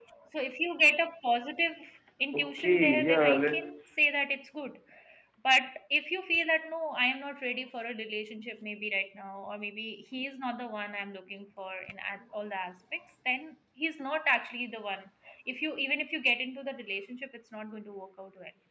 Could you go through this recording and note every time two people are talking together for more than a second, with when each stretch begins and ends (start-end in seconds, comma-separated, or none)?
2.4-3.8